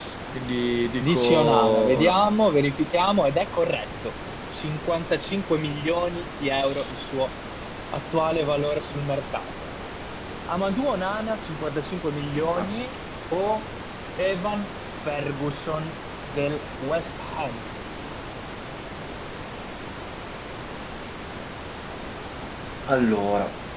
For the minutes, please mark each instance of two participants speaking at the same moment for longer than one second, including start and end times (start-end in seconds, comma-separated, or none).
1.0-2.4